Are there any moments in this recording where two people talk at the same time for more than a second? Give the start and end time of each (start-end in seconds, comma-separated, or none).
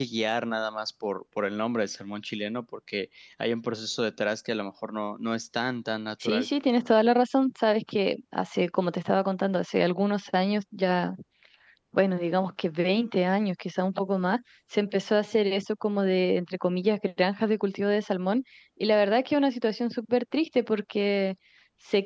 none